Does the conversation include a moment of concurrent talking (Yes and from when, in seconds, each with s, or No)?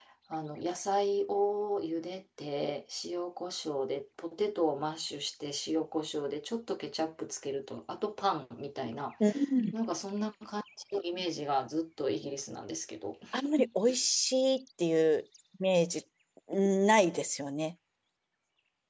No